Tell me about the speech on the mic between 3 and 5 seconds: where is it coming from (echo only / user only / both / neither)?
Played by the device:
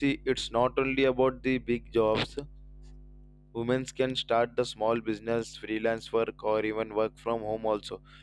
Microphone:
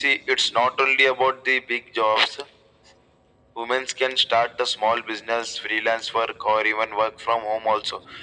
echo only